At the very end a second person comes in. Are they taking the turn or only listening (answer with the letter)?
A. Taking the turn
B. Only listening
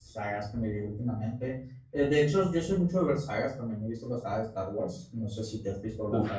A